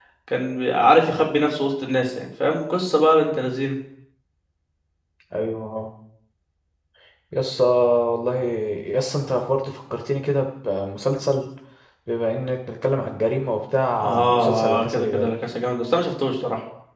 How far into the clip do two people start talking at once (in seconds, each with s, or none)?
14.0 s